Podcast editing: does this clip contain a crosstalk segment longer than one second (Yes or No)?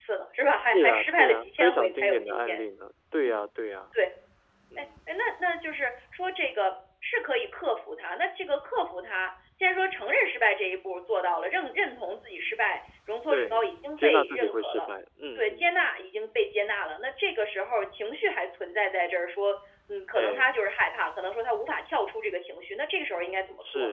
Yes